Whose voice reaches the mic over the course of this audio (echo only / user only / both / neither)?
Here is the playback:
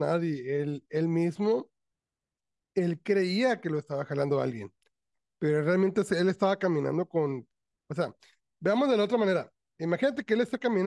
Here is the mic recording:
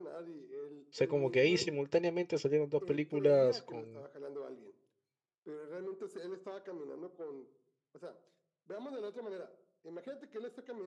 both